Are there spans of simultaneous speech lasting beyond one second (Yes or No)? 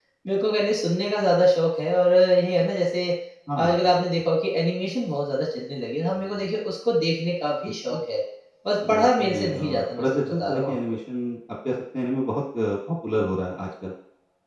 Yes